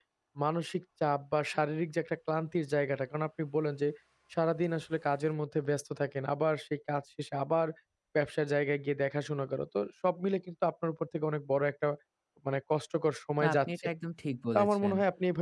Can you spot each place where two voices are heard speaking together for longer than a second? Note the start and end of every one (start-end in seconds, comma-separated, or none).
none